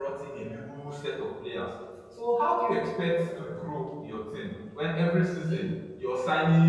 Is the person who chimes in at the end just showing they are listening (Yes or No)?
Yes